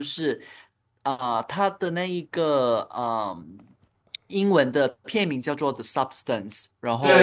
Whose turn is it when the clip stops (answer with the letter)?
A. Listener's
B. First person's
A